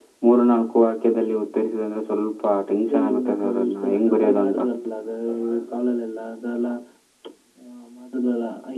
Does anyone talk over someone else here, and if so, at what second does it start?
2.9 s

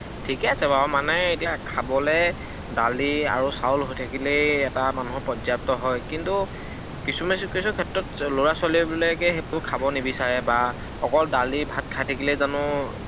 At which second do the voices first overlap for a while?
none

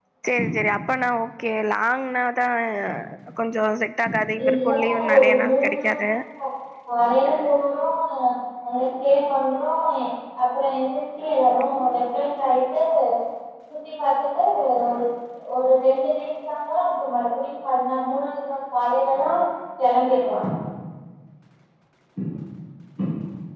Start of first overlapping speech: 4.4 s

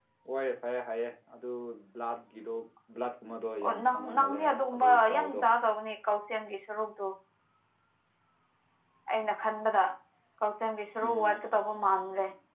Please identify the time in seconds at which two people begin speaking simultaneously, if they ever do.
3.6 s

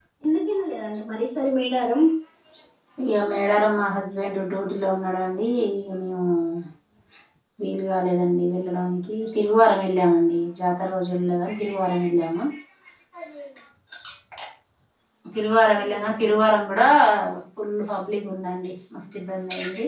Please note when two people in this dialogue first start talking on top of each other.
15.5 s

